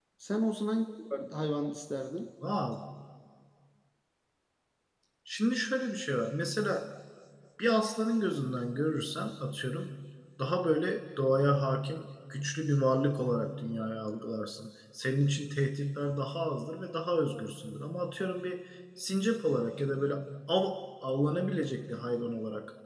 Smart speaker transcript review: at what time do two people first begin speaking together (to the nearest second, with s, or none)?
none